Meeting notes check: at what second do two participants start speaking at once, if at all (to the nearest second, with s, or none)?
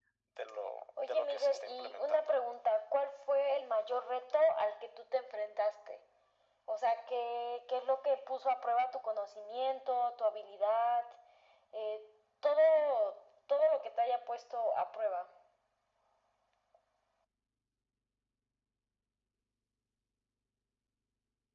1 s